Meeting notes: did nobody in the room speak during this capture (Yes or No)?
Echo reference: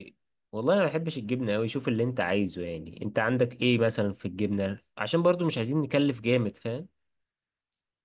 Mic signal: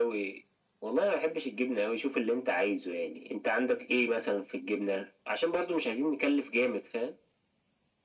Yes